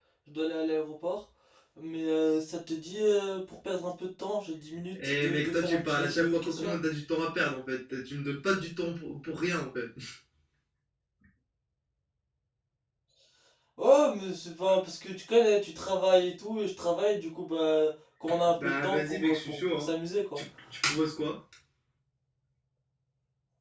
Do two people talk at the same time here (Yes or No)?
Yes